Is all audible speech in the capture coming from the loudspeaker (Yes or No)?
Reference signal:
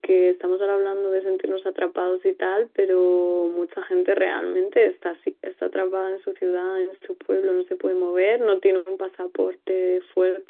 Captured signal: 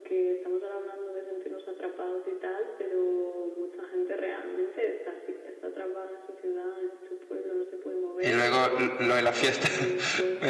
No